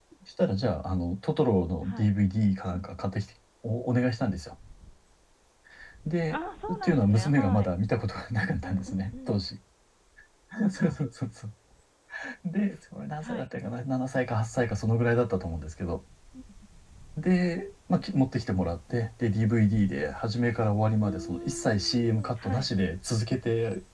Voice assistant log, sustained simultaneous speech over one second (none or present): present